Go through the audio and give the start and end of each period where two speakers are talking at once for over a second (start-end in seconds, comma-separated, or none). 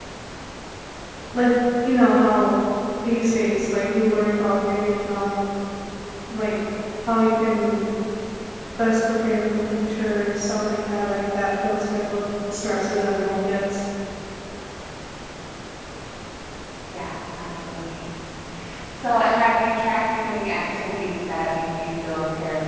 none